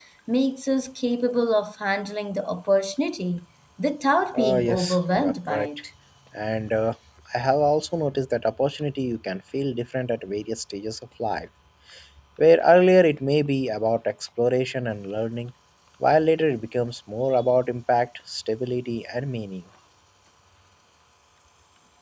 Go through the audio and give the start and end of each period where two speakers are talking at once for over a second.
4.4-5.7

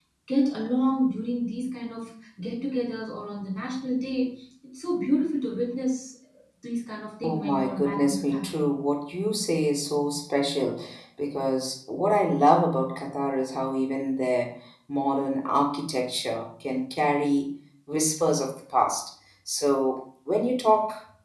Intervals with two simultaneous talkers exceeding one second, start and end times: 7.2-8.5

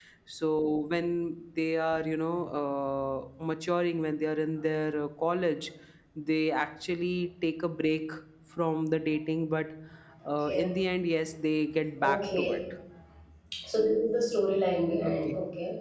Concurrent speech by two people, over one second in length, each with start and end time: none

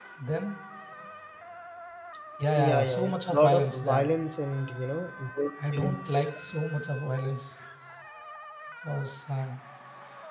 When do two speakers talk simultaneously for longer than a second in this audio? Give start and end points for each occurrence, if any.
2.5-4.1

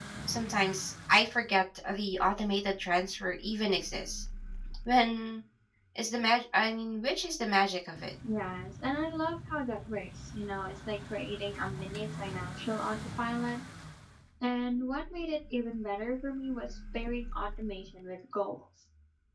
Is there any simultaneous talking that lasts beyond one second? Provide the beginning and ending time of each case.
none

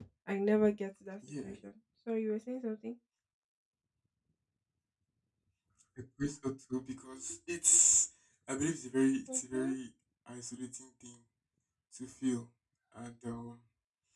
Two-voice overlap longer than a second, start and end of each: none

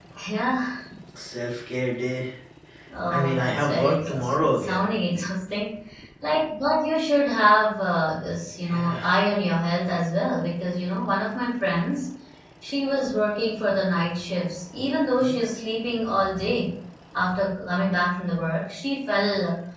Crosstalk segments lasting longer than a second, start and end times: 3.1-4.9

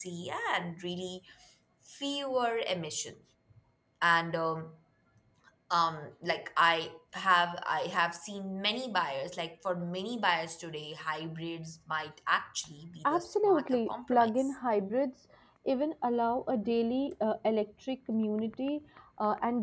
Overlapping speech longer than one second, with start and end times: 13.0-14.6

